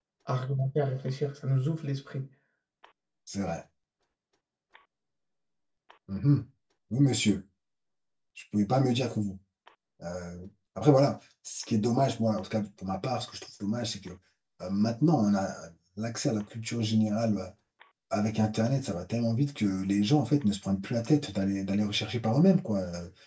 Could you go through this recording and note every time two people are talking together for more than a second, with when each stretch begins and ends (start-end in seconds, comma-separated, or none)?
none